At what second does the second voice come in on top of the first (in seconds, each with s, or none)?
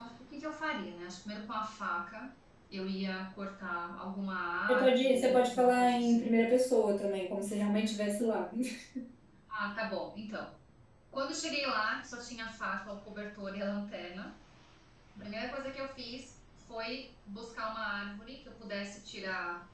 4.7 s